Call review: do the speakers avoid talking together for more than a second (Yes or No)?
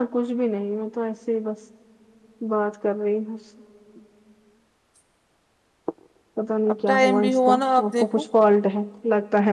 No